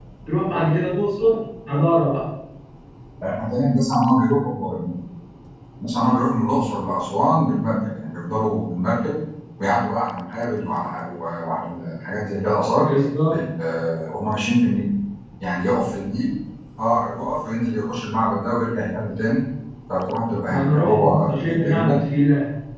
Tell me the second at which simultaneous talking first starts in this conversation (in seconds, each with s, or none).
20.5 s